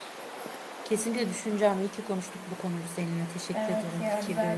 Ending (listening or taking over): taking over